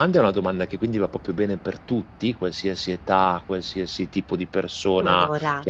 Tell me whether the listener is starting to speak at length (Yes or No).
No